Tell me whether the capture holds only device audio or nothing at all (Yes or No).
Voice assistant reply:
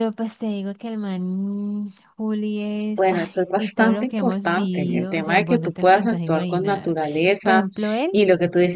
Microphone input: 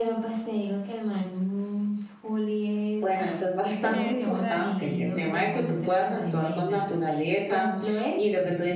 No